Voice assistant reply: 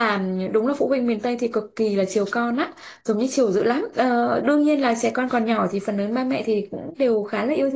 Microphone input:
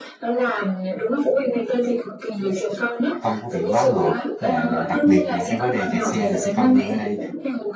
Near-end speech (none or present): present